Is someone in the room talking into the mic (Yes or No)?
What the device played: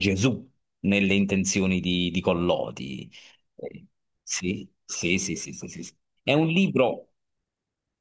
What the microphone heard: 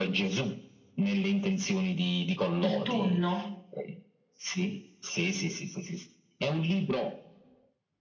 Yes